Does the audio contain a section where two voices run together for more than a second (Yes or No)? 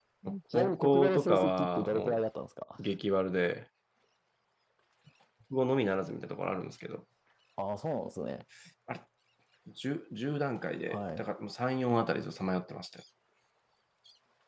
Yes